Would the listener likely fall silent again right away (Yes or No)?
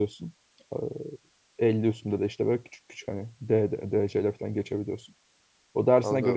Yes